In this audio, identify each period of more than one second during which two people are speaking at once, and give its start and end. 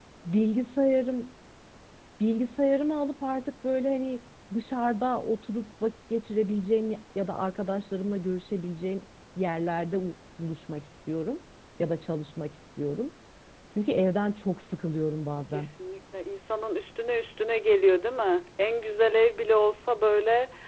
none

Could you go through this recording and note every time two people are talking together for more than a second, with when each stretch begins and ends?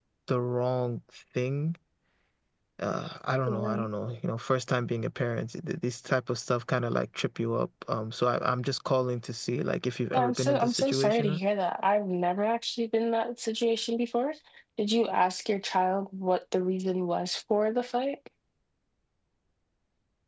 10.1-11.4

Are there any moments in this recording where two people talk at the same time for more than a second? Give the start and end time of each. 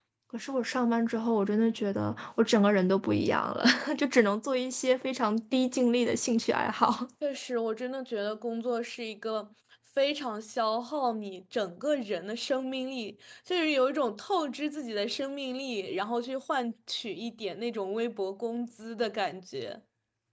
none

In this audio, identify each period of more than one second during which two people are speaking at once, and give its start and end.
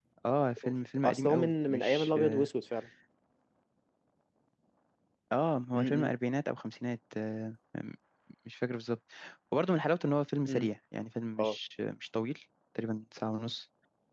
0.6-2.5

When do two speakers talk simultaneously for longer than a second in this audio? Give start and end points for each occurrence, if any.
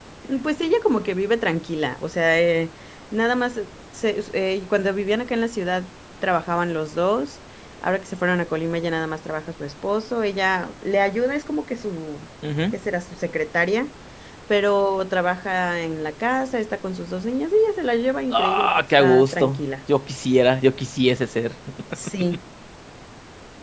18.3-19.6

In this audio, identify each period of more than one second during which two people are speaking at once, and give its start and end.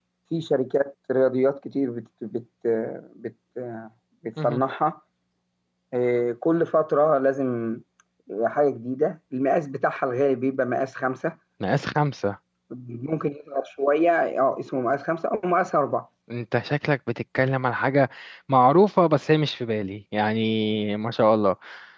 none

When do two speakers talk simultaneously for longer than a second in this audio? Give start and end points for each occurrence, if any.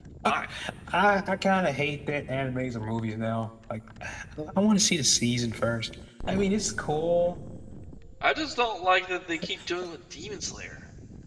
none

